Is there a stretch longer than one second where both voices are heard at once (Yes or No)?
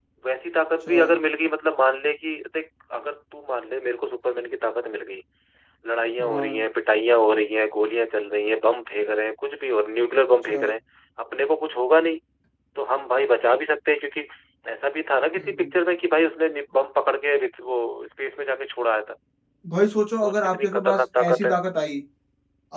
Yes